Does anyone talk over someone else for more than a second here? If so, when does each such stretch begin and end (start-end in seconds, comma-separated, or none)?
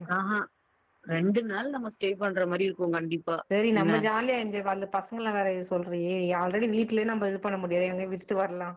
none